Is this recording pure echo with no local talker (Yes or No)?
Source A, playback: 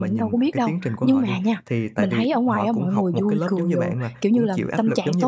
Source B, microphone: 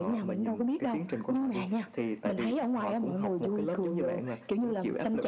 Yes